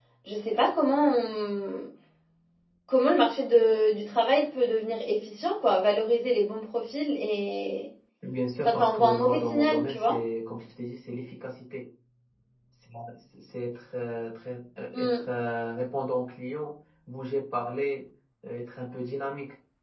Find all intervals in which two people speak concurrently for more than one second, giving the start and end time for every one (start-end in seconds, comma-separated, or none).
8.7-10.2